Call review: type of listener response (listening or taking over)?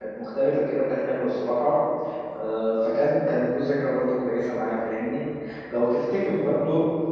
listening